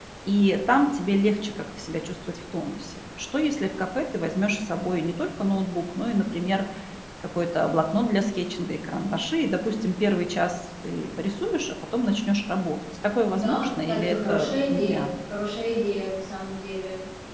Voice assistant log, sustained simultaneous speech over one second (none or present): present